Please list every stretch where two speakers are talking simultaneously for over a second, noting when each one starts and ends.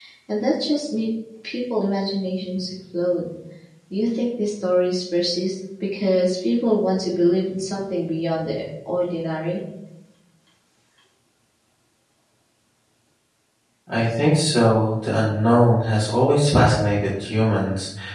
none

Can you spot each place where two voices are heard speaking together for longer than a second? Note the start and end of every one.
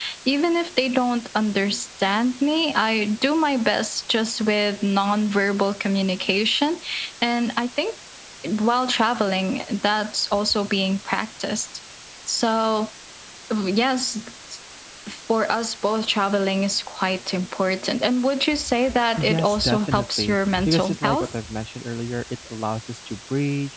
19.2-21.4

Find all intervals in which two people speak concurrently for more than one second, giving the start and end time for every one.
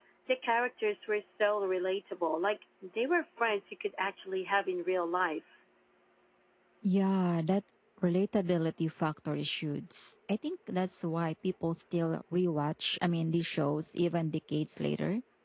none

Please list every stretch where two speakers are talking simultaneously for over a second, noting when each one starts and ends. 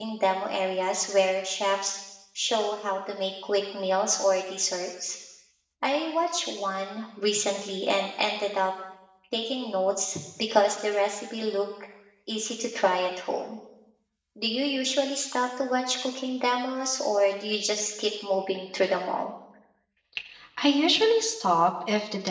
none

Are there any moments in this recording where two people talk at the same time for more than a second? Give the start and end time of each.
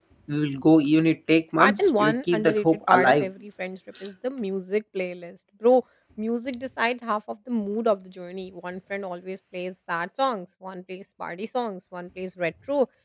1.6-3.3

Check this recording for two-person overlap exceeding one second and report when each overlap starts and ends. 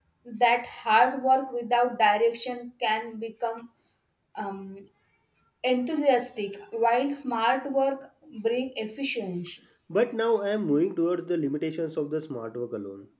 none

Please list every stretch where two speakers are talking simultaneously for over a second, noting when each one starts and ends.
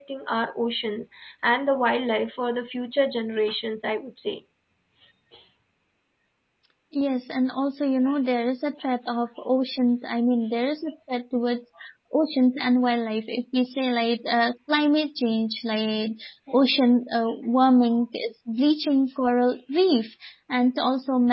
none

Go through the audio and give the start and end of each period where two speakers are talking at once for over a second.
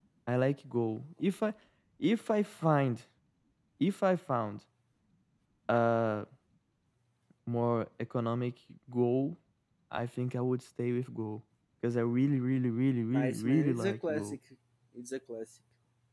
13.1-14.4

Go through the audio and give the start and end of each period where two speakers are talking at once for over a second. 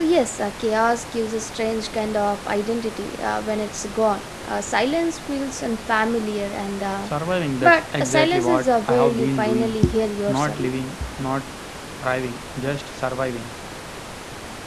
7.6-9.8

